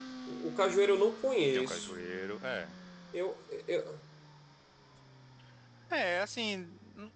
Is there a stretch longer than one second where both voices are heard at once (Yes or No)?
No